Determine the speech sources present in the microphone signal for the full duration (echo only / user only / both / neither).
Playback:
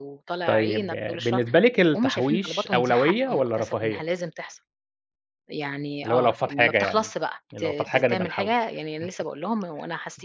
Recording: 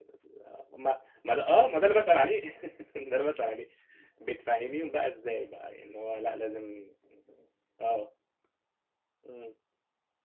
user only